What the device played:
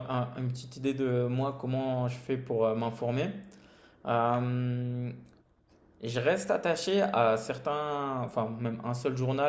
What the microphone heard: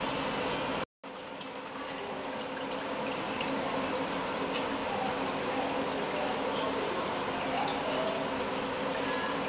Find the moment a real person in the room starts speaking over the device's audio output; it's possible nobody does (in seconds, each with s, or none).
none